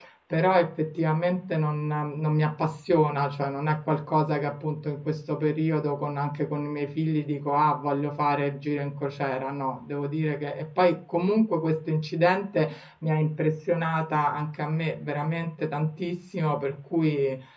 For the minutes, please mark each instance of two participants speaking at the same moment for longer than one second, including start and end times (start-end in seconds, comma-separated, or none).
none